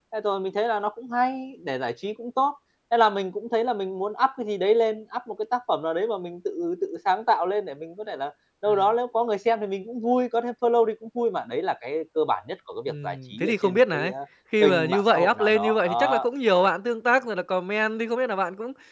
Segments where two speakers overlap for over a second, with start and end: 12.9-14.1, 14.6-16.2

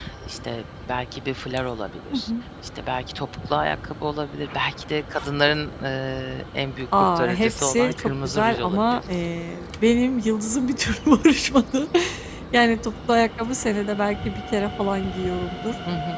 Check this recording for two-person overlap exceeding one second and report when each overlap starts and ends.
7.0-9.0

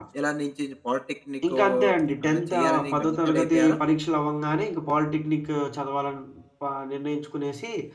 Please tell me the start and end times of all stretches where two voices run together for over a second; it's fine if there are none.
2.3-3.8

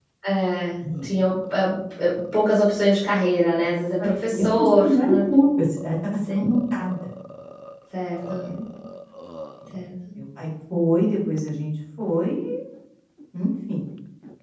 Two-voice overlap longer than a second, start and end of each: 4.0-5.2

